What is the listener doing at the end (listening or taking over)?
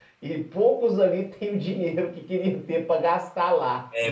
taking over